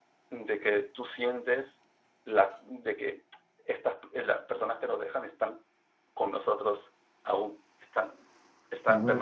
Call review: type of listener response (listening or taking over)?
taking over